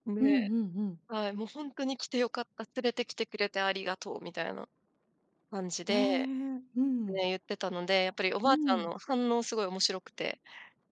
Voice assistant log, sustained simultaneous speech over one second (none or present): none